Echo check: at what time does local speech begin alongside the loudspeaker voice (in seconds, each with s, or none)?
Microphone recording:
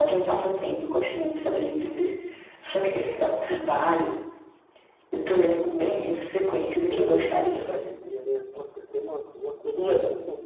6.3 s